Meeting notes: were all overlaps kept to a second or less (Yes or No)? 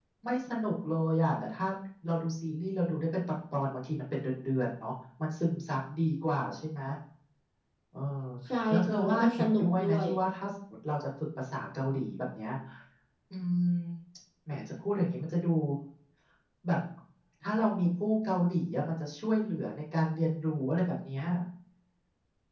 No